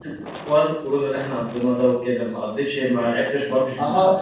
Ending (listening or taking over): taking over